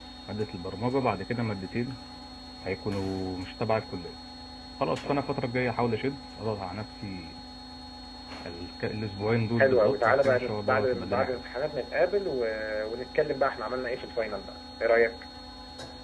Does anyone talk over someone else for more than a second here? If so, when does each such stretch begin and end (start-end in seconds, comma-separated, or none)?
9.6-11.4